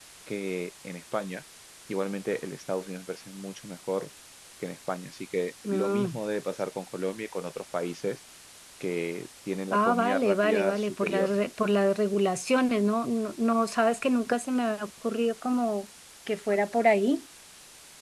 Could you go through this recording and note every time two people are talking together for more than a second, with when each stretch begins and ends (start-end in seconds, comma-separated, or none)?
9.7-11.3